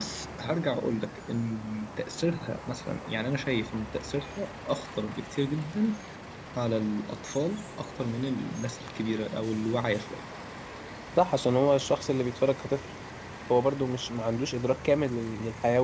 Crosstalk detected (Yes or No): No